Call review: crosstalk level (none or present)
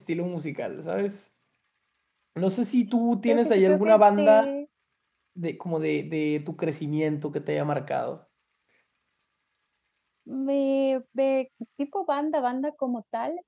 present